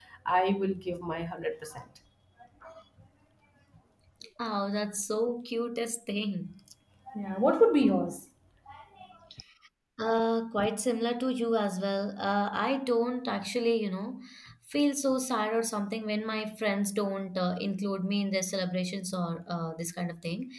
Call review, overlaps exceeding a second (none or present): none